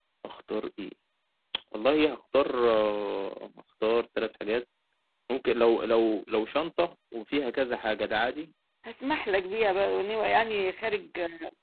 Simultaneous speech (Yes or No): No